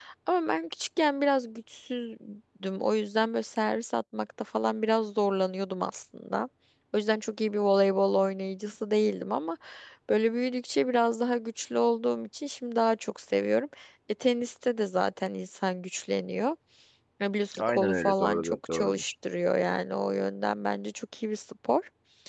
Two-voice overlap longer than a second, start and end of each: 17.6-19.1

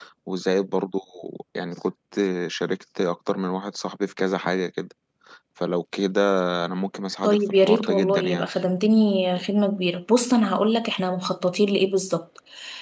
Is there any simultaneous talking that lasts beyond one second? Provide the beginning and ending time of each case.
7.2-8.4

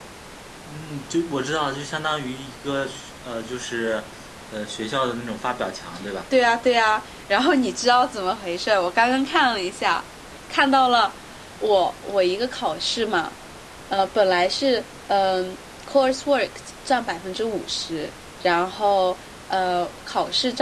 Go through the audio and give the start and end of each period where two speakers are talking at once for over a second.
none

